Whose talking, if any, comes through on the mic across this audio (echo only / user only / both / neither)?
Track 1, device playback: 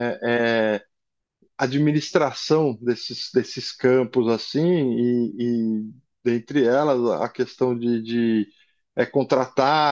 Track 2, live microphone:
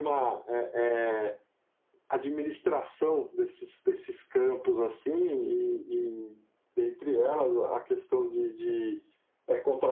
echo only